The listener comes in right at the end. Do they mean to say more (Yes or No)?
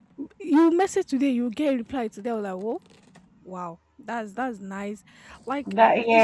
No